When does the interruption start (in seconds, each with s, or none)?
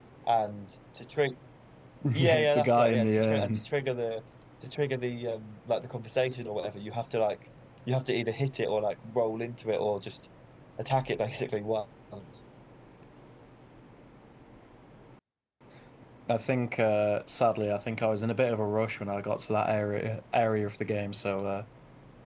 2.1 s